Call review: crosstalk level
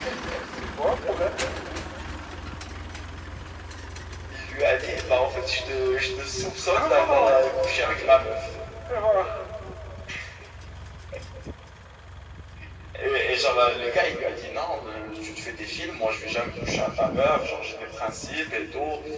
present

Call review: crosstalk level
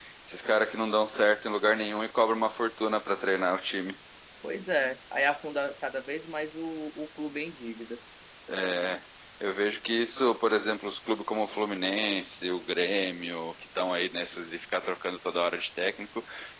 none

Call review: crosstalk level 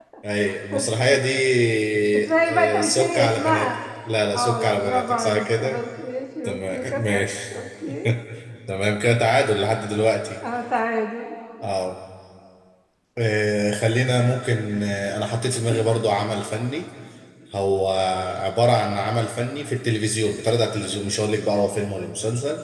present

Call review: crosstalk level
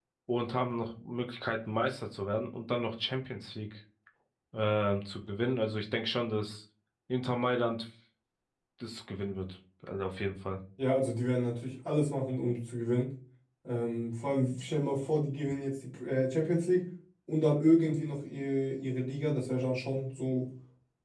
none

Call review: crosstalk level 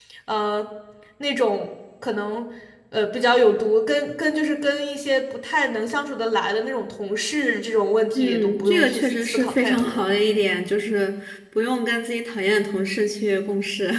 present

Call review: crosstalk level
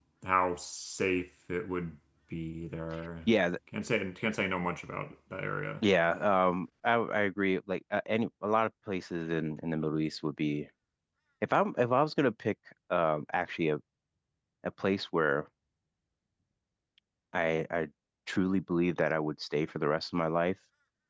none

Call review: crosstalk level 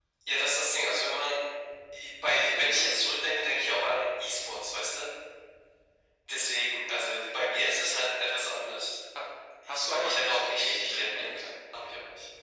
present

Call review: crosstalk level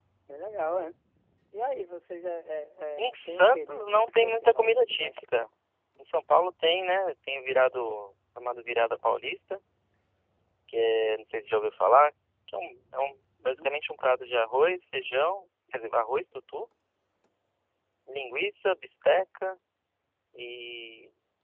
present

